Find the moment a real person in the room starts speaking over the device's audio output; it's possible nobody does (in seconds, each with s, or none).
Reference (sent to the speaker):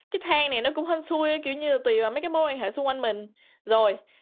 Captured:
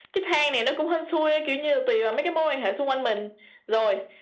none